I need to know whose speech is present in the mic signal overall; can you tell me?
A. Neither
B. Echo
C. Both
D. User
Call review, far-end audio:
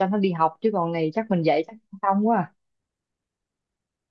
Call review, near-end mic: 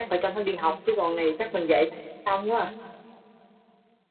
B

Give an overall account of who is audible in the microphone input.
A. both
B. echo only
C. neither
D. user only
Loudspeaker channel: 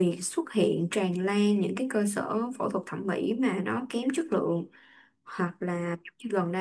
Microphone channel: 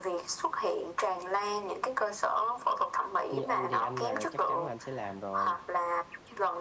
A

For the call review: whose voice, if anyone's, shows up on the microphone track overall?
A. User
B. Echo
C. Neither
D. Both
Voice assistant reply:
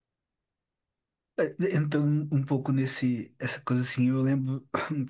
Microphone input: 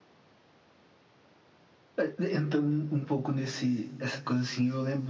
B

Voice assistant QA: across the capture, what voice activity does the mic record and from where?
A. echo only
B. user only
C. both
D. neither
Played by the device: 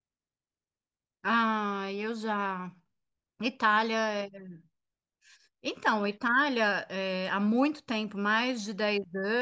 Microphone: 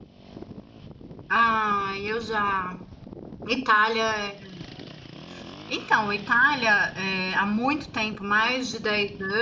A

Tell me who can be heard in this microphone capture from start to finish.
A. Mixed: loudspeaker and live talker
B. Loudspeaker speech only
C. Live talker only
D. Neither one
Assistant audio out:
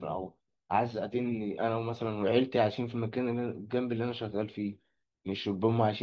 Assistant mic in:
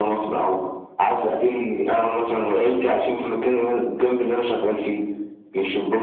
B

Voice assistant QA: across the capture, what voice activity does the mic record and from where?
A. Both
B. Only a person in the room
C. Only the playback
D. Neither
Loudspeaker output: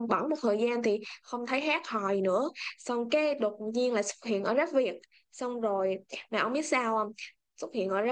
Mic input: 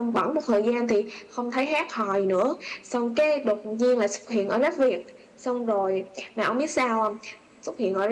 C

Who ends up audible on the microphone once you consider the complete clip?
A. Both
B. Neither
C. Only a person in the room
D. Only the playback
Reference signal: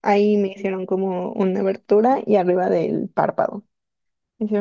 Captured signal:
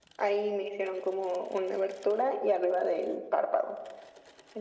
D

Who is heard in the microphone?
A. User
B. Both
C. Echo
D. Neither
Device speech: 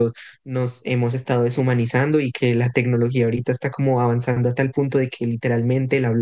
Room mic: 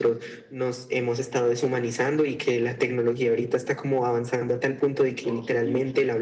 B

